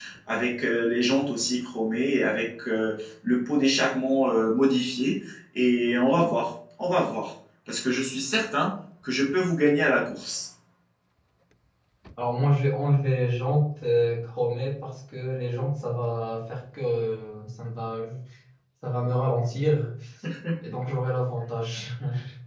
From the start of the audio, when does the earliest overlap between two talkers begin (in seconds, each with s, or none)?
none